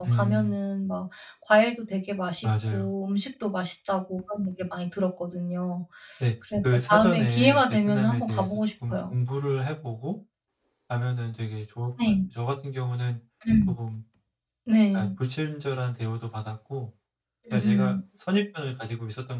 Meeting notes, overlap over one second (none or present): present